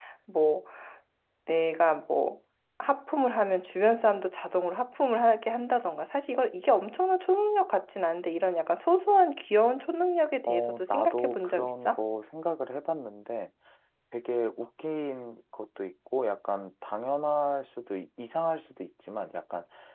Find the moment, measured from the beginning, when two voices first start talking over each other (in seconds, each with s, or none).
10.5 s